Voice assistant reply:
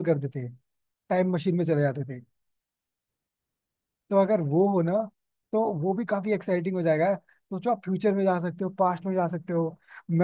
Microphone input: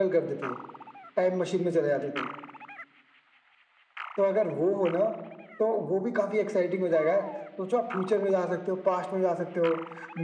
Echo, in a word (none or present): present